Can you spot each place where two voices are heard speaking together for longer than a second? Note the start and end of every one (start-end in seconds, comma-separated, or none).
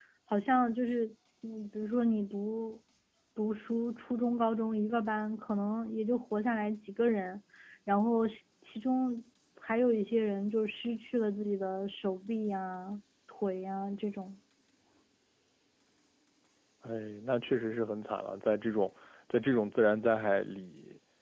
none